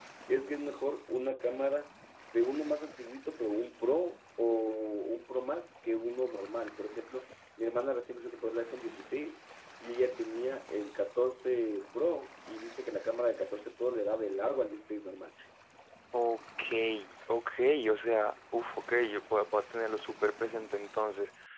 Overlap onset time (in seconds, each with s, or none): none